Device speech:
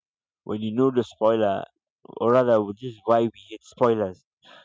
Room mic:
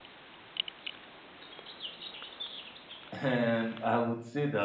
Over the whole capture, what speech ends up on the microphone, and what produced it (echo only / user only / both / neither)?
user only